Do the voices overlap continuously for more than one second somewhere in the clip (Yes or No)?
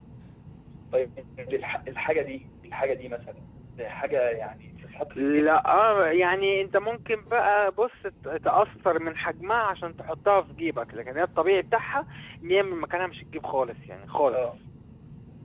No